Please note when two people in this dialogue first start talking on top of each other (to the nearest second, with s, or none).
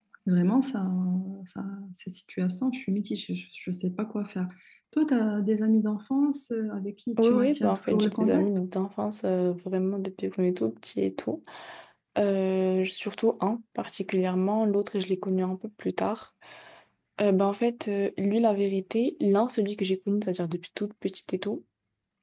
7 s